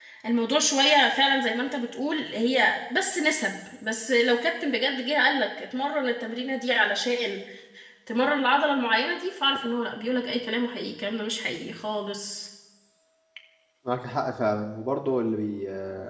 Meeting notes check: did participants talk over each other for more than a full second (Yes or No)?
No